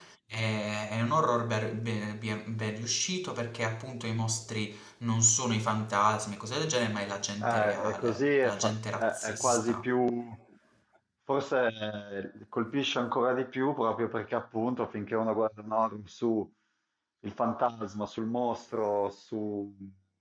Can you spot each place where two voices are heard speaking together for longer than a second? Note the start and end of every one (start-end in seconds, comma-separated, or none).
7.4-9.8